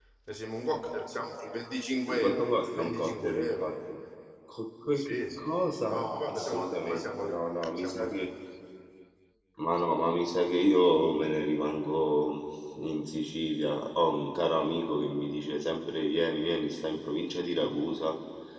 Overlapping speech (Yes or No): Yes